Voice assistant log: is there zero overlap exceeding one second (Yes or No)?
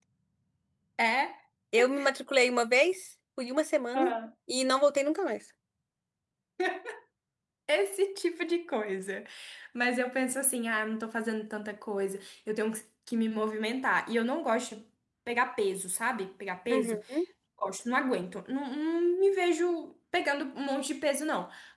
Yes